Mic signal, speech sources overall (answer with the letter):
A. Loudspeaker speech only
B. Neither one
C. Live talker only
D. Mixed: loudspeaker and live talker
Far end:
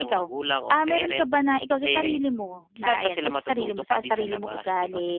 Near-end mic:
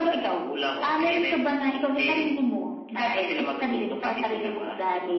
A